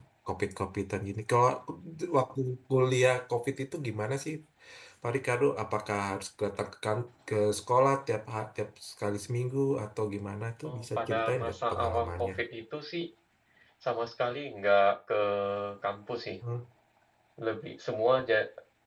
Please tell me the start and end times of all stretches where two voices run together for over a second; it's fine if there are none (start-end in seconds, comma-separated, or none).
10.7-12.3